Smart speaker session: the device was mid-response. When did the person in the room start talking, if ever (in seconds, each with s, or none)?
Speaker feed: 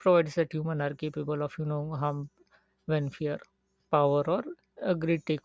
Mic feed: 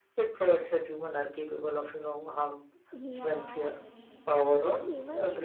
2.9 s